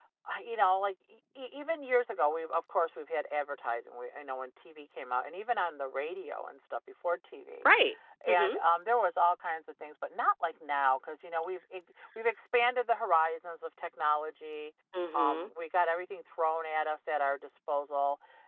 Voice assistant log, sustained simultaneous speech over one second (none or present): none